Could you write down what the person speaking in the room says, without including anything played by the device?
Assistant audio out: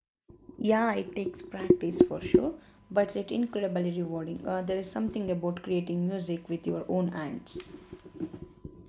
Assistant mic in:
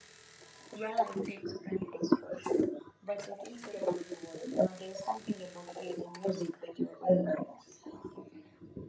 none

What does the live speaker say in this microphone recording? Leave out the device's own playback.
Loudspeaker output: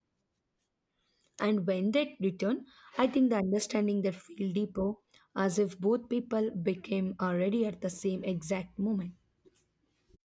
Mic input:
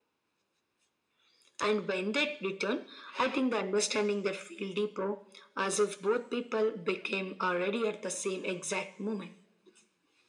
none

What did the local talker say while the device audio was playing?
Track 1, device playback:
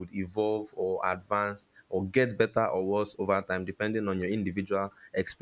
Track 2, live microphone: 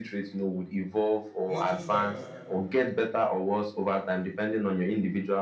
notice that

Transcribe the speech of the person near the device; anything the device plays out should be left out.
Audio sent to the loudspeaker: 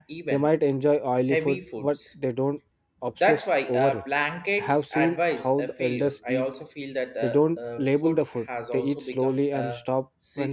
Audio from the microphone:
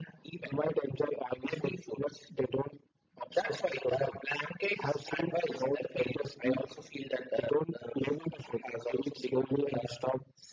none

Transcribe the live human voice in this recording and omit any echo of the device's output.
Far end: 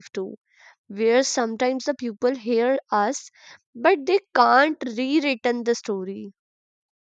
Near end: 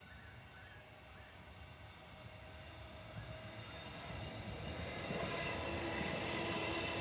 none

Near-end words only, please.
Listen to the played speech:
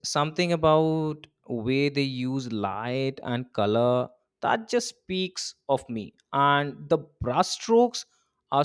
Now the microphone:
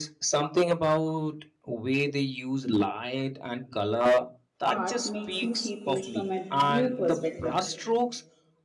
art makes me see things from a new perspective.

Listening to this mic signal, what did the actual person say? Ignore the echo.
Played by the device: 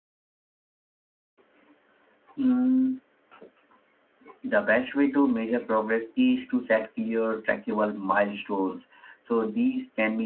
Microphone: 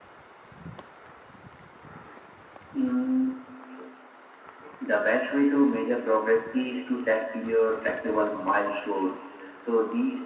none

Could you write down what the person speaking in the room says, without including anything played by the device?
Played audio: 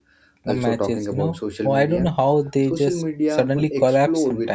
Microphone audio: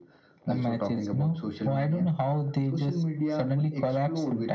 none

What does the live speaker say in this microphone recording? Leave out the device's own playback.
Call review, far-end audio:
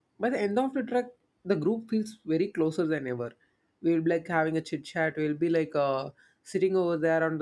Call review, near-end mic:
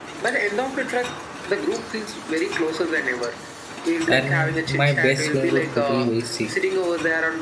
and my best friend was totally very sick.

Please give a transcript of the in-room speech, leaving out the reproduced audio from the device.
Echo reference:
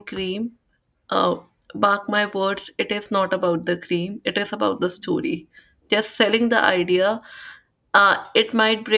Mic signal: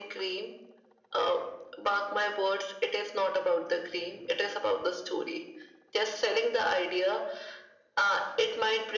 none

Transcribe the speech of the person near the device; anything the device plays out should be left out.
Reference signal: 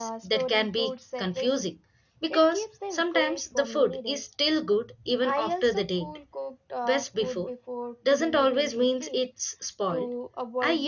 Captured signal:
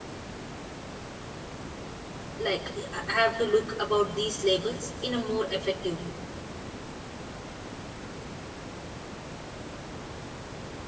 Like, I I have to look about these labels in a more effective way.

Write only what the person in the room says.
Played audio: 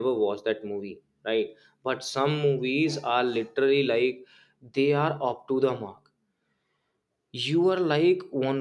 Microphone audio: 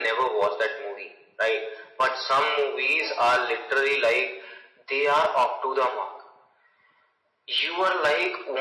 none

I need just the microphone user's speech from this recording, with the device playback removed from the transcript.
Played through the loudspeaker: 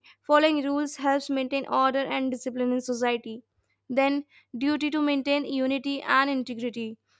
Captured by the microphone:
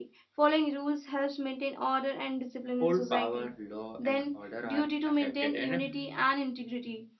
hold power, law and order are affected and

